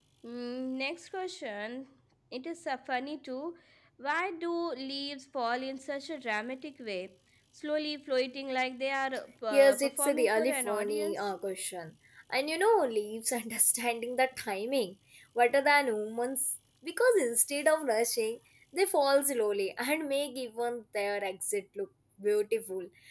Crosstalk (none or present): present